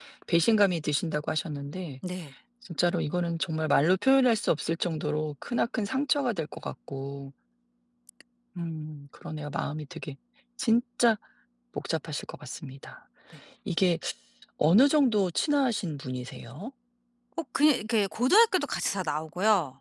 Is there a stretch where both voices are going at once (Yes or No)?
No